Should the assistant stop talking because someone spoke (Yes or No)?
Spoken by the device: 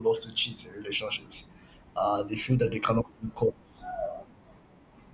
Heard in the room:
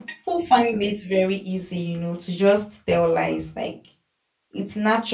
Yes